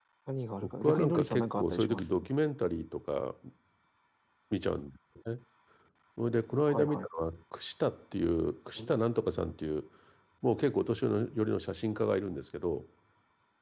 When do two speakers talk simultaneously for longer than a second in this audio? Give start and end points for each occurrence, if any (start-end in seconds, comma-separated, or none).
0.6-2.1